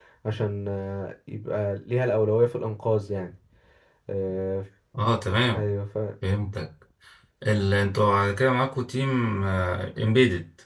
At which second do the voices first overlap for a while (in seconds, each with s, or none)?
none